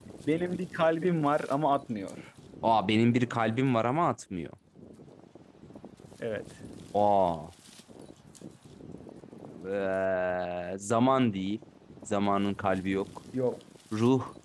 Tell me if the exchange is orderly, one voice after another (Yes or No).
Yes